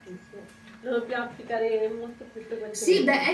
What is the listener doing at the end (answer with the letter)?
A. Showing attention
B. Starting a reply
B